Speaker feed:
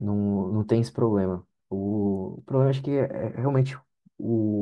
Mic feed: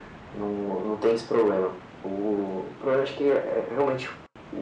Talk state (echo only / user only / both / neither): echo only